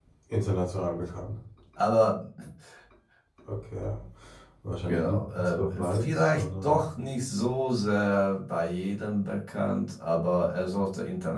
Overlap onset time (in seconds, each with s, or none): 4.9 s